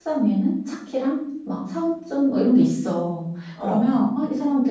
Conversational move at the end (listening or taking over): listening